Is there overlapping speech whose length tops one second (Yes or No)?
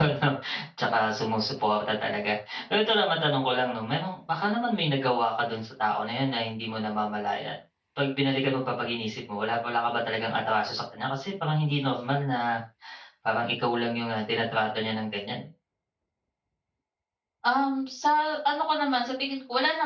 No